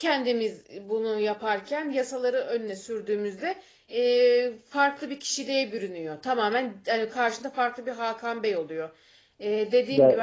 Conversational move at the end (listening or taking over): taking over